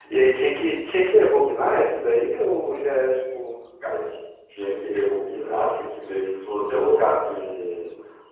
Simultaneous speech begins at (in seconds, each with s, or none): none